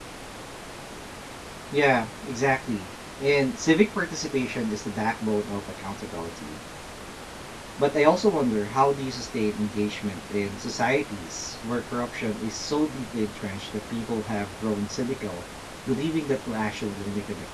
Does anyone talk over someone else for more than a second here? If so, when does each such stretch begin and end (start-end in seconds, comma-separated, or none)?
none